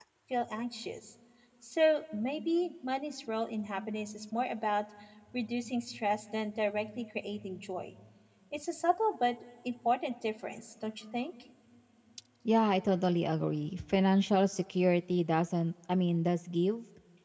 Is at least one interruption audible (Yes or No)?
No